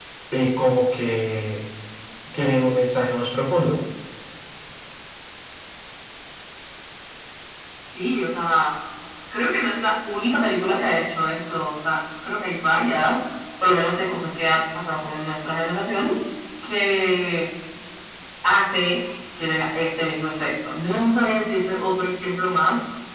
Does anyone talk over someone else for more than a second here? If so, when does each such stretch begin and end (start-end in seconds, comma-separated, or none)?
none